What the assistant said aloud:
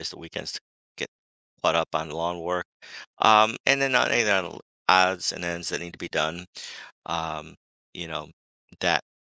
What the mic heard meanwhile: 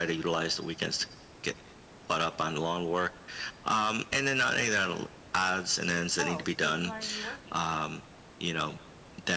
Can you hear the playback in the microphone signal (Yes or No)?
Yes